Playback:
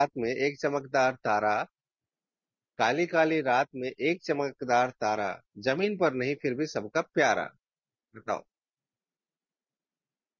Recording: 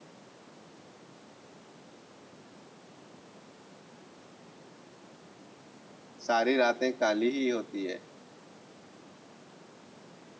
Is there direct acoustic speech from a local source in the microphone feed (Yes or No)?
Yes